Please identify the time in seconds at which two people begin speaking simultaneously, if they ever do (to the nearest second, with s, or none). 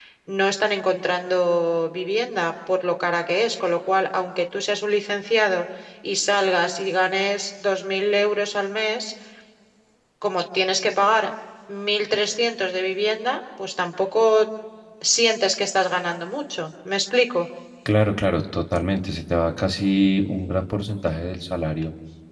none